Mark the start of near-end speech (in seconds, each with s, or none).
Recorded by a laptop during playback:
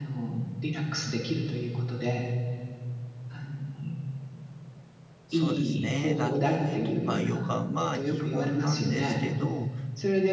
5.2 s